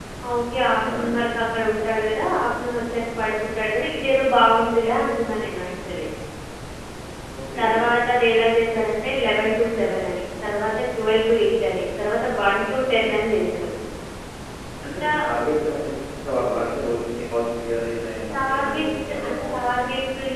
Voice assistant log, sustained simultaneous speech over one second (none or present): present